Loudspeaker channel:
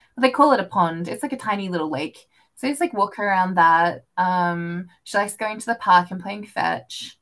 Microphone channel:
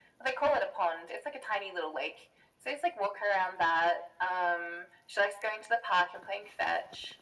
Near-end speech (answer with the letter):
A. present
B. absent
B